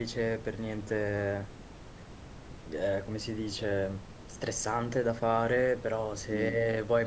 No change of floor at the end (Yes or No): Yes